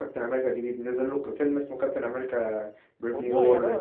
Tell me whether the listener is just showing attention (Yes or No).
No